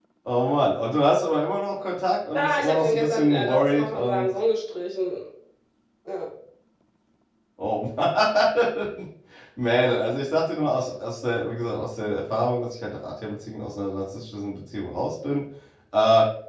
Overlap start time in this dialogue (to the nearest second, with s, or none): 2 s